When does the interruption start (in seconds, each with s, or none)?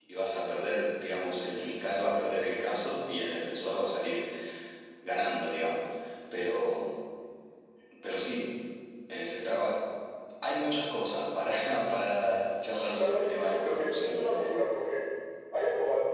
13.0 s